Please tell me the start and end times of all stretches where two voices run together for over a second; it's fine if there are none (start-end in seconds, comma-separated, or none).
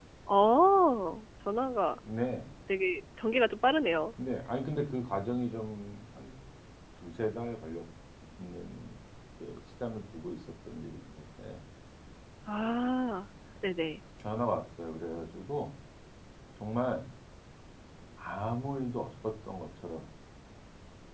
none